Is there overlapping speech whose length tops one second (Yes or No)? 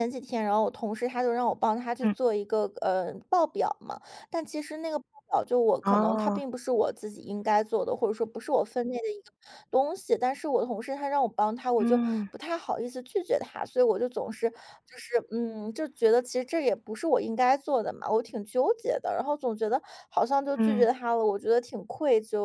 No